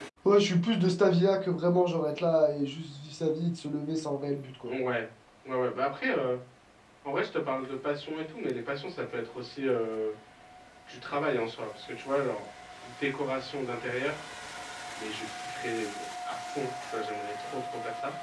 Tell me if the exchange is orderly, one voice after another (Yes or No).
Yes